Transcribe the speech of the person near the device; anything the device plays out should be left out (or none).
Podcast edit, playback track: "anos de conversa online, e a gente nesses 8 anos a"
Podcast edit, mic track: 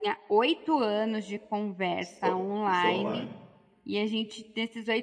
Só só online.